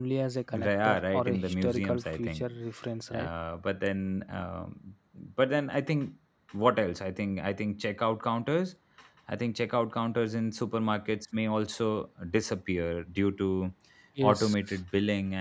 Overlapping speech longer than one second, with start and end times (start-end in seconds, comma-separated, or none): 0.5-2.5